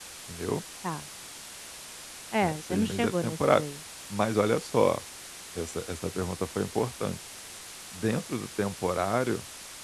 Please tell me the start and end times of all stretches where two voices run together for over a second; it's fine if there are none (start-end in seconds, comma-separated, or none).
2.4-3.6